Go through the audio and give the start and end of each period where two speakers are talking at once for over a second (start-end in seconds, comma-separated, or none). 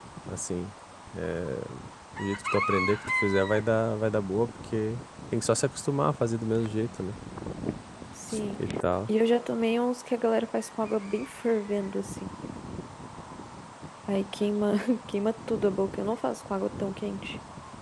none